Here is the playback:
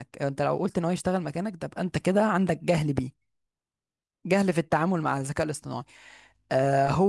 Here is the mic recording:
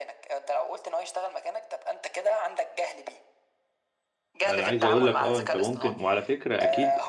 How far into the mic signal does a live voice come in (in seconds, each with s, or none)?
4.4 s